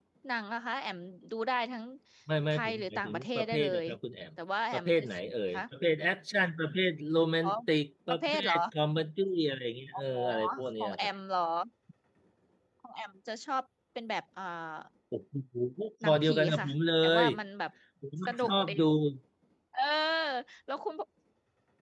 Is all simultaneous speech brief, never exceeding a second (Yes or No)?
No